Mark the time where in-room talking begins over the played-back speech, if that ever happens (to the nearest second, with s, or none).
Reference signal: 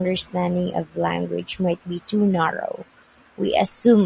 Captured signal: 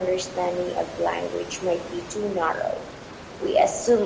none